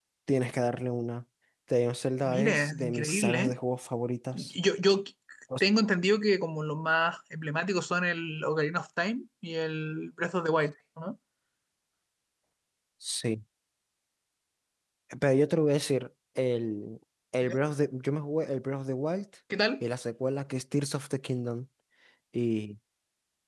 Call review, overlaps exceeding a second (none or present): present